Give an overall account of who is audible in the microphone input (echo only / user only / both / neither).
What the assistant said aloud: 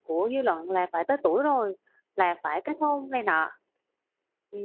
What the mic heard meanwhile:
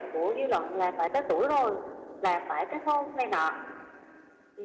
echo only